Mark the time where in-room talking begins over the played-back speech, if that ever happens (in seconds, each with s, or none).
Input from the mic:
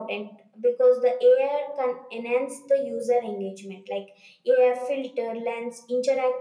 none